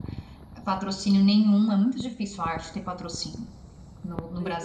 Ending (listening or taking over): listening